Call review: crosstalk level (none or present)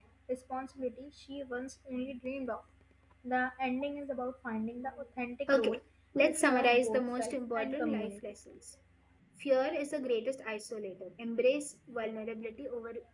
present